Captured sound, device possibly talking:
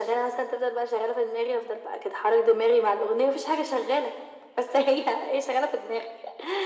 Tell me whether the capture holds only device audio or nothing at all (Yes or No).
Yes